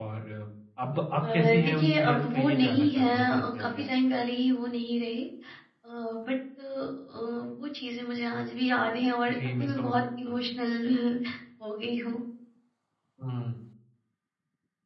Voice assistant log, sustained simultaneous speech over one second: present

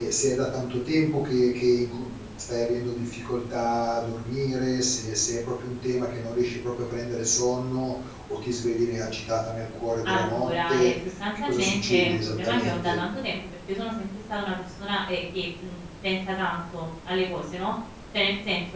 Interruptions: present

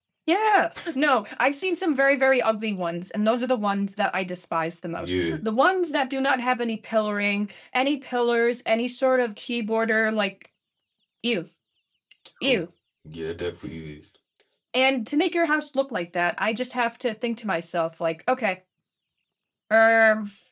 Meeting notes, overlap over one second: none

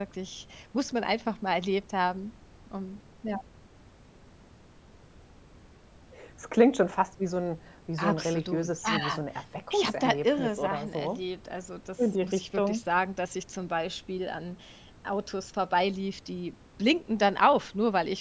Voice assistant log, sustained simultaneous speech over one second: present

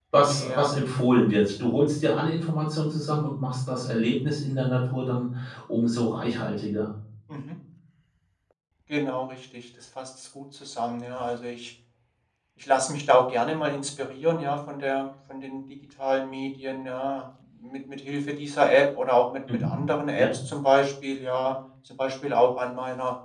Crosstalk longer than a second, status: none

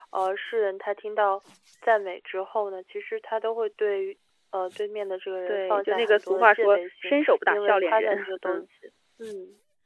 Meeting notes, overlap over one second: present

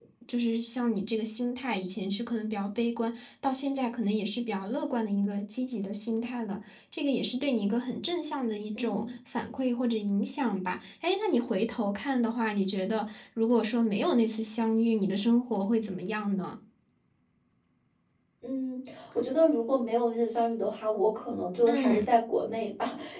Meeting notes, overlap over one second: none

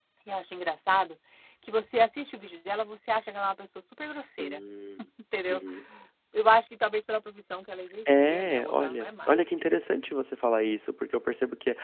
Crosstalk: present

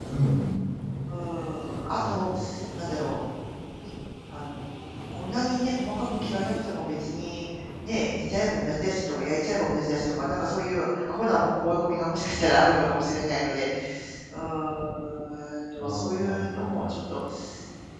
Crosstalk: present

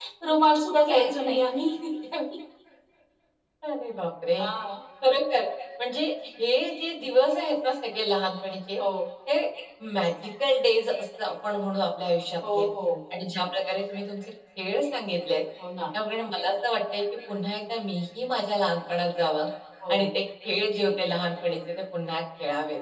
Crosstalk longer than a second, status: none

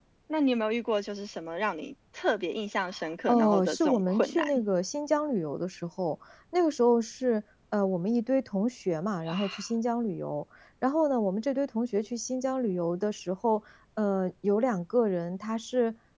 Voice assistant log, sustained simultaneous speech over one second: present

